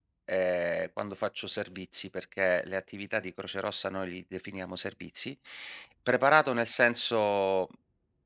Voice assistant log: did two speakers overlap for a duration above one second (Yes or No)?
No